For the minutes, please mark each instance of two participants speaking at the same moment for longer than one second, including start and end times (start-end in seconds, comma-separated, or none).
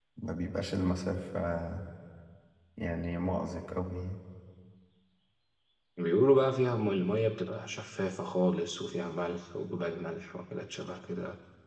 none